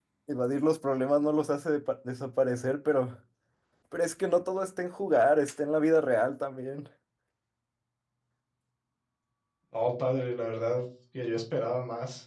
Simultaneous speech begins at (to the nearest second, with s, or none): none